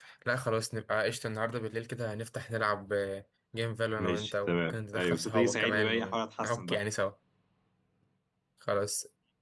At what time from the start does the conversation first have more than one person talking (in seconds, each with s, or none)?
4.0 s